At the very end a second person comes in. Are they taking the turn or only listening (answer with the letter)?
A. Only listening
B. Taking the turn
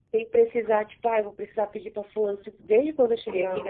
A